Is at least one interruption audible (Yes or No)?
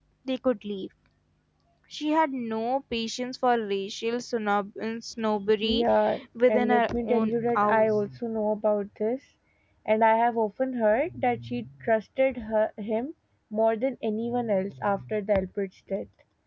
Yes